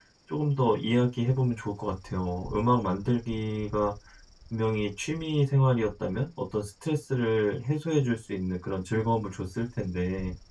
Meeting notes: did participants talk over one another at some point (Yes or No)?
No